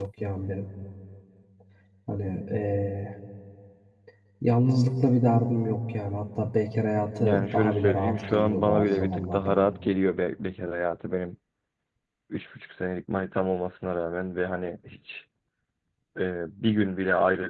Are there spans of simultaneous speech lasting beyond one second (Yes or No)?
Yes